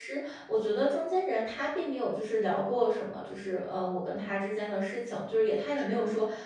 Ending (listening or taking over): listening